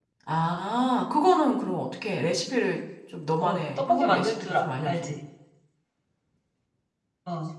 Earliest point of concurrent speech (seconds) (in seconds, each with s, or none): 3.4 s